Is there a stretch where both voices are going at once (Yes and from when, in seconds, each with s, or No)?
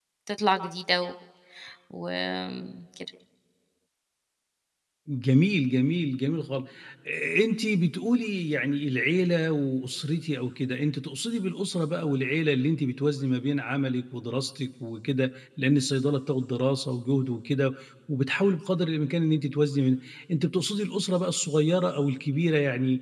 No